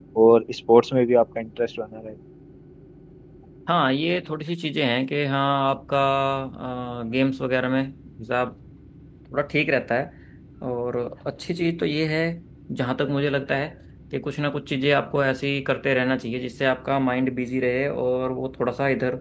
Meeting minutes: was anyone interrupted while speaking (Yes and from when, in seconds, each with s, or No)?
No